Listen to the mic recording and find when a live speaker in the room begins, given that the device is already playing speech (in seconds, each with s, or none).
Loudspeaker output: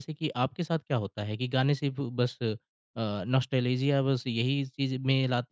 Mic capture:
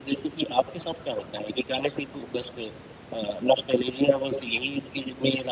none